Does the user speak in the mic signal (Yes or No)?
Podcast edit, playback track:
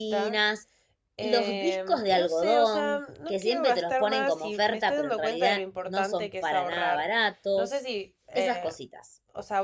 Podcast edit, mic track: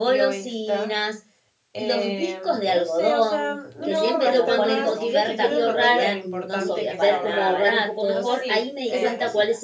Yes